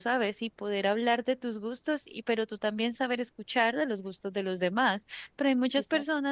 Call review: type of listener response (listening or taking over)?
listening